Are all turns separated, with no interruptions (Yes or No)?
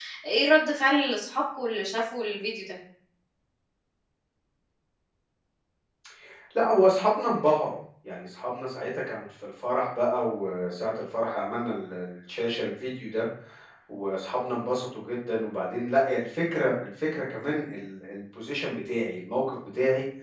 Yes